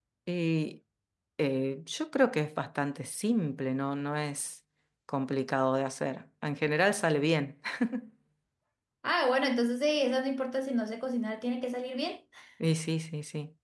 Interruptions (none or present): none